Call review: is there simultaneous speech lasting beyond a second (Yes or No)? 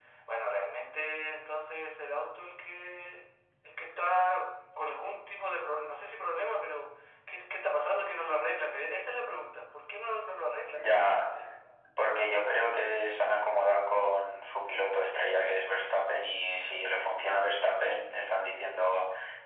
No